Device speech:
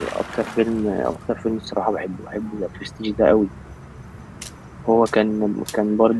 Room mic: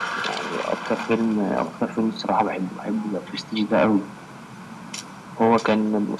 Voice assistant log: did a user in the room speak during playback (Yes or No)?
No